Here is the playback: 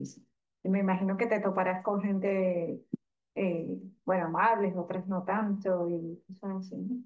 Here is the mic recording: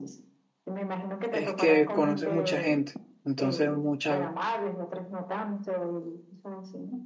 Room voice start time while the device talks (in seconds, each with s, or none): 1.3 s